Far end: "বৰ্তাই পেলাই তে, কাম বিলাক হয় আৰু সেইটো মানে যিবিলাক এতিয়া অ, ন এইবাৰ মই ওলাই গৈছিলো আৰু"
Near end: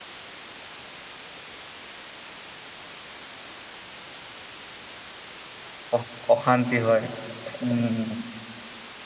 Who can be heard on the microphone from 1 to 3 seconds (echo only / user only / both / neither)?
neither